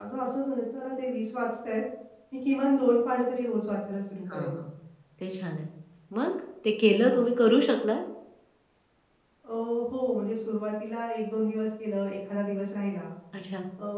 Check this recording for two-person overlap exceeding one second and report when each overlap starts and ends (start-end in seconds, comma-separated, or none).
none